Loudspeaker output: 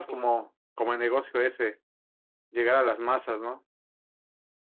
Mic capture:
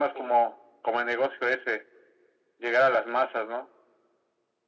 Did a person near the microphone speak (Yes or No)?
No